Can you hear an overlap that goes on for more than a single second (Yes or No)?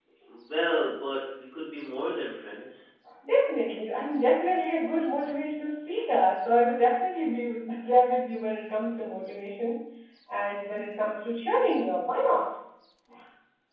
No